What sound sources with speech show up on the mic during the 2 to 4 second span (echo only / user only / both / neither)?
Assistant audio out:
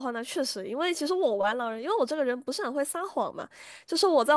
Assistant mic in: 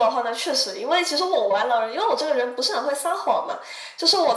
echo only